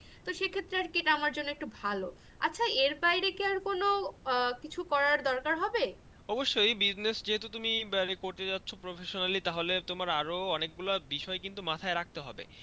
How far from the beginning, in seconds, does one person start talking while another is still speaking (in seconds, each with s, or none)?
none